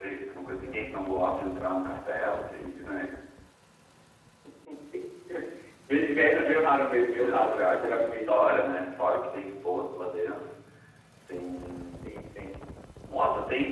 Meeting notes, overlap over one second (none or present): present